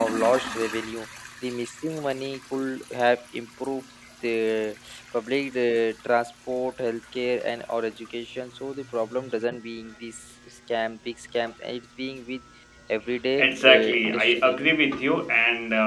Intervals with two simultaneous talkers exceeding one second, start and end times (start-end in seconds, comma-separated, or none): 13.4-14.6